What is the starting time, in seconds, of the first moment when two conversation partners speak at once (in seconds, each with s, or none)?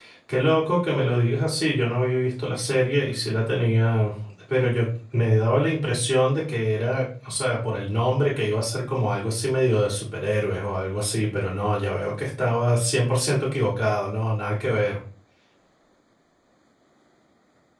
none